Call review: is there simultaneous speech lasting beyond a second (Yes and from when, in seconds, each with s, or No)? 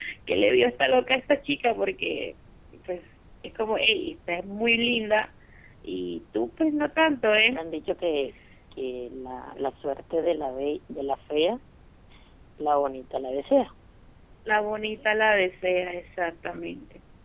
No